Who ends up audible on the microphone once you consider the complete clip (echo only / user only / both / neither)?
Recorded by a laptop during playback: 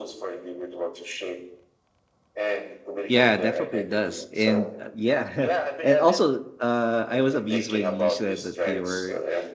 both